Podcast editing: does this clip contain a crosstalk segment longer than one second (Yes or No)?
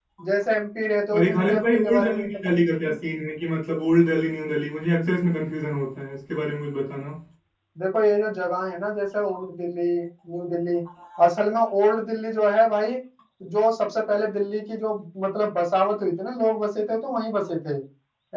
Yes